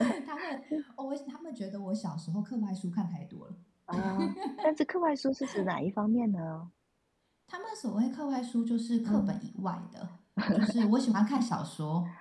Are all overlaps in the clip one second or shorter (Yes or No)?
Yes